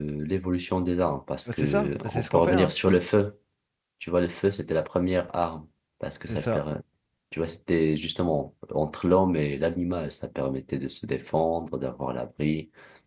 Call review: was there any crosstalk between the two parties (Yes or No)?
Yes